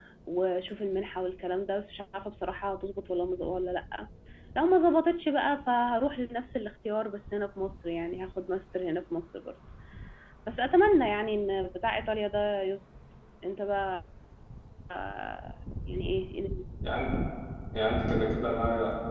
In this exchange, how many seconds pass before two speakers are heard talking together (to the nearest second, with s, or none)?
none